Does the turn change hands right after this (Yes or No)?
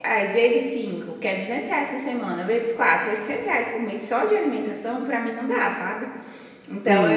No